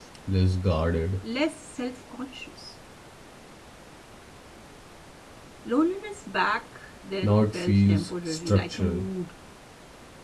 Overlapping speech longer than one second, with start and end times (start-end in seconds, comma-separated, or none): 7.2-9.0